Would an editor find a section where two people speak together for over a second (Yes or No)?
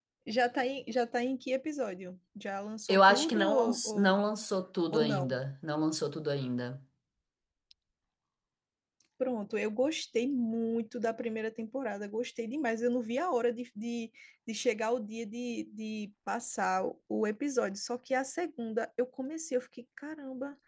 Yes